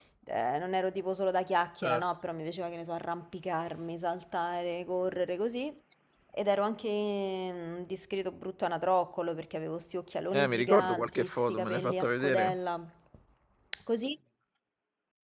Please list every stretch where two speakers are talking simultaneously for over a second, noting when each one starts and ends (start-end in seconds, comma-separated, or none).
10.3-12.5